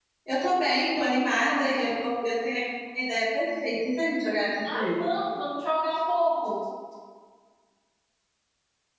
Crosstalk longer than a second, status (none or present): none